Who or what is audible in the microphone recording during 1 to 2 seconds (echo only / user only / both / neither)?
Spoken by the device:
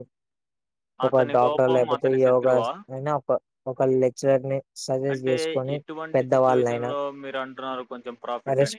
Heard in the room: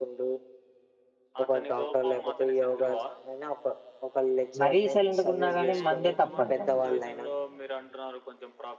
echo only